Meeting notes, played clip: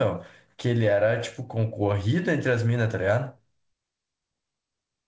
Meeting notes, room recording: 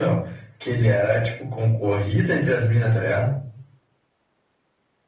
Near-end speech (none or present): none